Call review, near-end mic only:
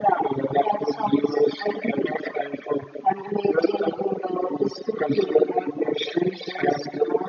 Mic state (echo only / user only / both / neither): echo only